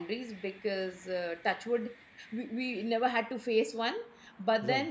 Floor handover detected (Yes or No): No